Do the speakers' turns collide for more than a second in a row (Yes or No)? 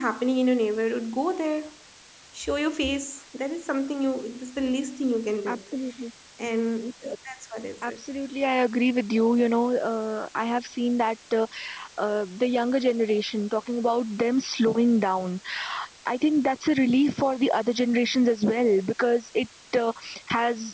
No